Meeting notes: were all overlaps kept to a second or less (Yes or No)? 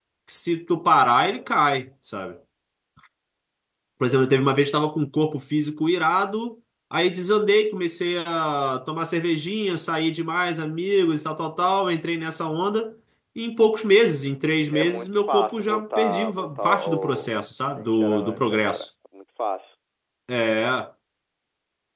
No